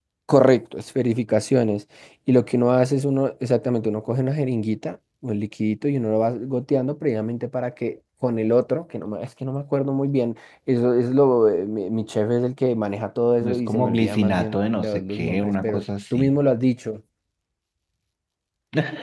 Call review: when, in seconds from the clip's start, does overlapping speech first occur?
13.4 s

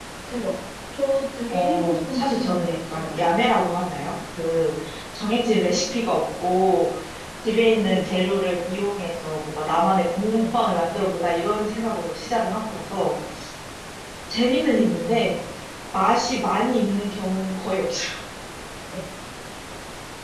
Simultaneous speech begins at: 1.5 s

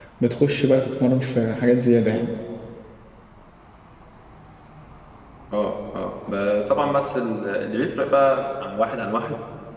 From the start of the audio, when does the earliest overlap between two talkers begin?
none

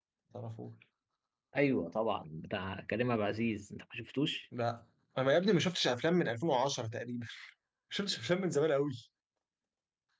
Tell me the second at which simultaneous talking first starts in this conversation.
none

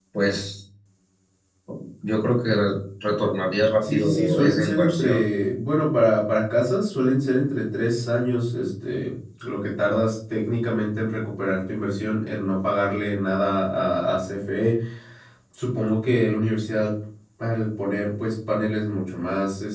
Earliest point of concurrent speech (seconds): 3.8 s

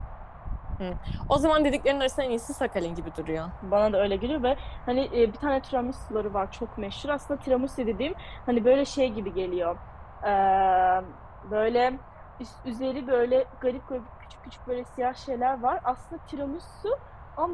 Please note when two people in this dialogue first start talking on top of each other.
none

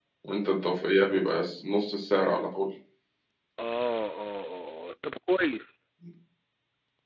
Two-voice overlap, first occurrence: none

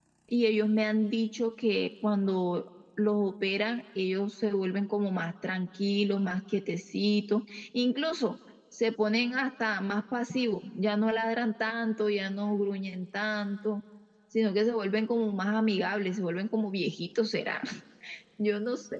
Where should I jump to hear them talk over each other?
none

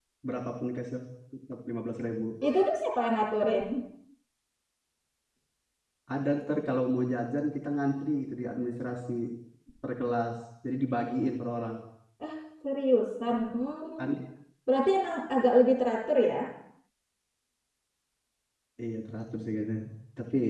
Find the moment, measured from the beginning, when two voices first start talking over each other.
none

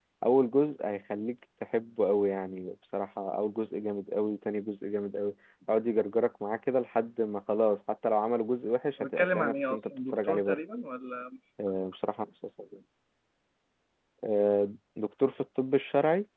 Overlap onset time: 9.0 s

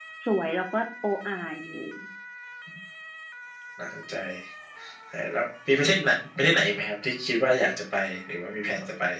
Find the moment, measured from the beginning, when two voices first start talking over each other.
none

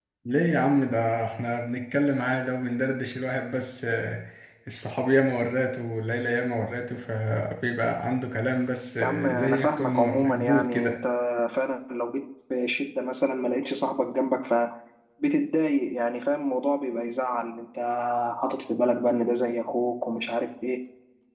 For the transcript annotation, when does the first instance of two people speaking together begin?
9.0 s

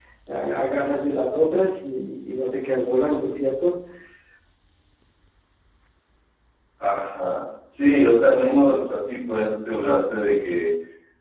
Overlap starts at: none

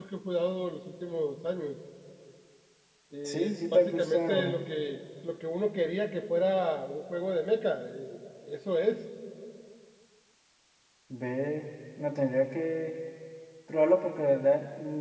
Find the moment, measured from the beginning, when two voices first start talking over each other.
3.2 s

